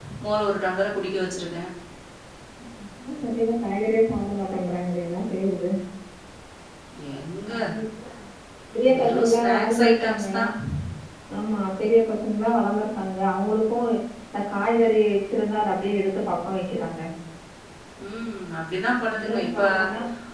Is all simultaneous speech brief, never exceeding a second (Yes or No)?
No